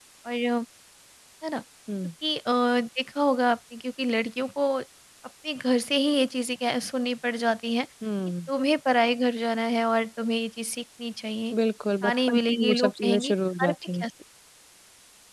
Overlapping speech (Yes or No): Yes